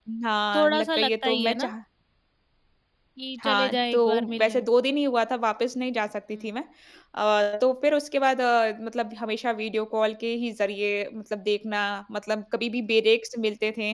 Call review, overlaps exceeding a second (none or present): present